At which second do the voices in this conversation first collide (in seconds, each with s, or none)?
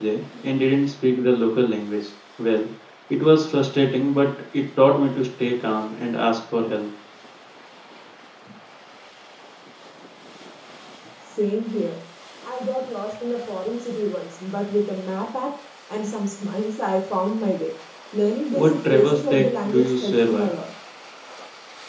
18.5 s